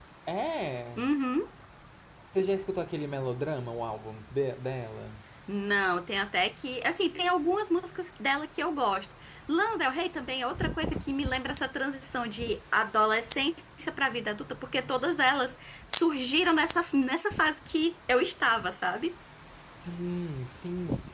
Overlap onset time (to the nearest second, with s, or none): none